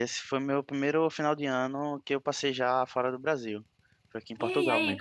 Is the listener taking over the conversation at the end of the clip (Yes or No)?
Yes